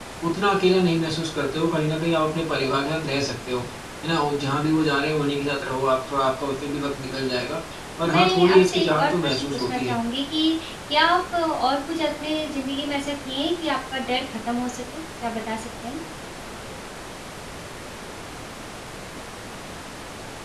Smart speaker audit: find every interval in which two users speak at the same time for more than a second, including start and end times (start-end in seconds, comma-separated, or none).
8.0-10.0